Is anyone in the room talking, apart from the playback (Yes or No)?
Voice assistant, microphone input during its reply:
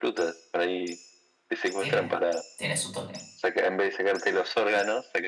Yes